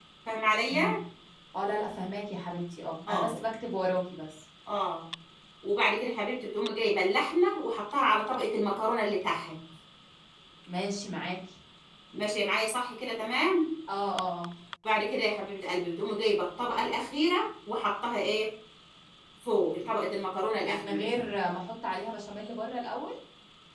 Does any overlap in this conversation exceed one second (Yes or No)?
No